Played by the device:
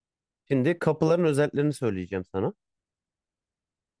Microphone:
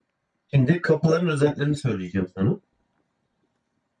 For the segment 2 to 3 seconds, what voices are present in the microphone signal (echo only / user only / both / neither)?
echo only